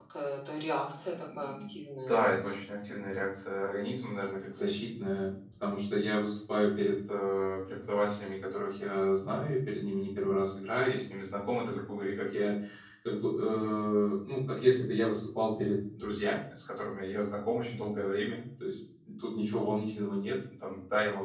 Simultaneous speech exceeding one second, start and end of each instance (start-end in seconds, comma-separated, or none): none